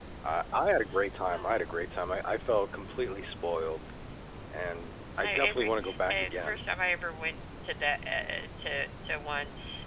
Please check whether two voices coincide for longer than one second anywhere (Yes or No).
Yes